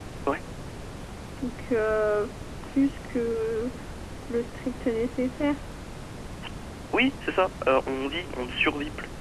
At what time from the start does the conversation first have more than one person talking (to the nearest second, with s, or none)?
none